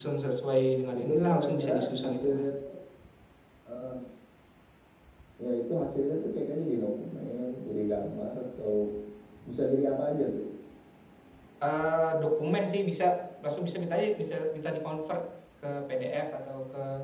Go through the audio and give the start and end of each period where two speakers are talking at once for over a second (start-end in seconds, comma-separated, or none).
1.0-2.4